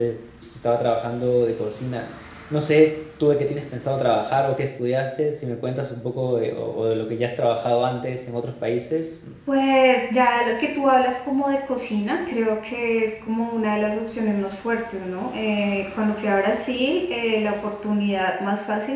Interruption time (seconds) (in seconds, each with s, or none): none